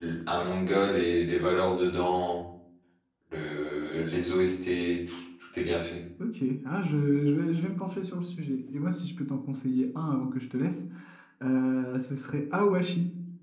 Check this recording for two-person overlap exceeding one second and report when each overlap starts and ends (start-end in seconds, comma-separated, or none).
none